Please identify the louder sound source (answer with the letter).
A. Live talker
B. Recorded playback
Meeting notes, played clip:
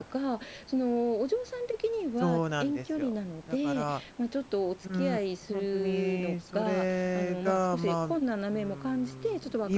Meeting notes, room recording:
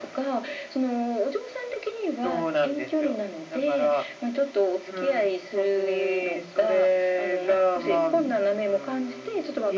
B